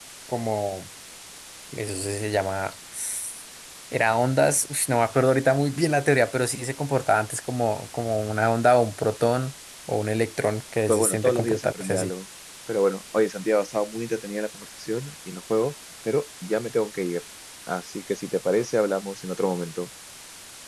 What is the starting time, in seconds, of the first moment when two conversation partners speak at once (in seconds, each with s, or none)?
10.9 s